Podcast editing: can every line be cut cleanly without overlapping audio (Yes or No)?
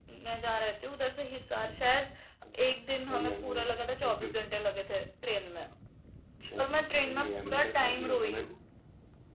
No